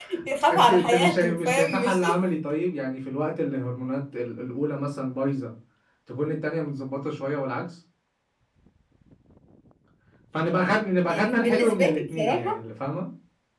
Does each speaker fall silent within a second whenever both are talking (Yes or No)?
No